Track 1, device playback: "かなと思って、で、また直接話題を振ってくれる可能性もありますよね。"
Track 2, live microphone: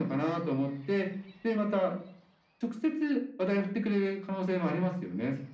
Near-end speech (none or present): none